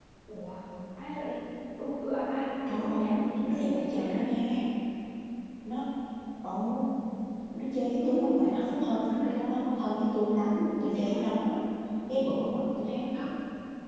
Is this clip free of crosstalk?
No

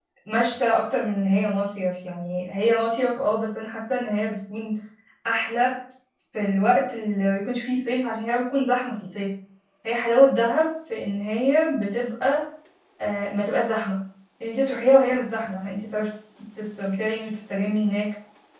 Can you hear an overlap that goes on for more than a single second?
No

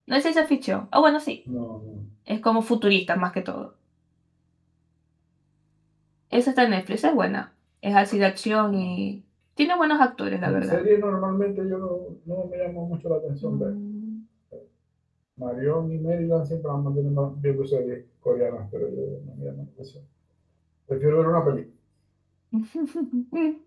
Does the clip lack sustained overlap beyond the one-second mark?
Yes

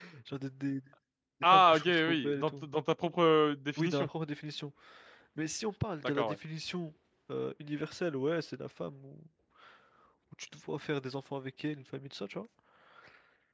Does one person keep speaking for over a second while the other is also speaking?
Yes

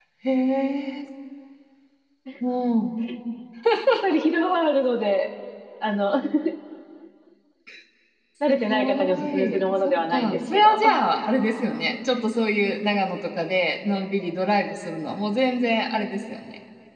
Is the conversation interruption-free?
No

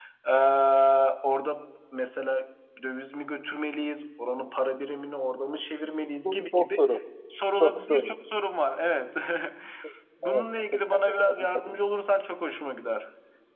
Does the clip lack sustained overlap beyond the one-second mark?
No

